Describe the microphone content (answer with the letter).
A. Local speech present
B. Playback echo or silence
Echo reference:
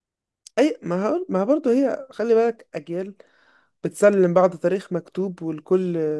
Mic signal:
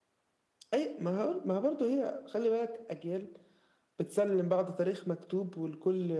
B